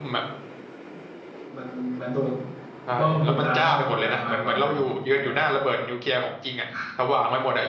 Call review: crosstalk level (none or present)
present